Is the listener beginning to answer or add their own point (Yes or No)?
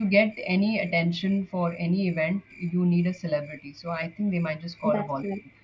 Yes